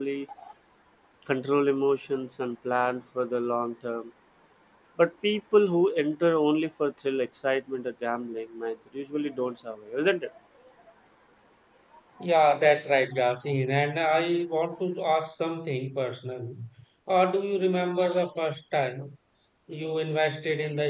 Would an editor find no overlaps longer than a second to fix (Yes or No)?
Yes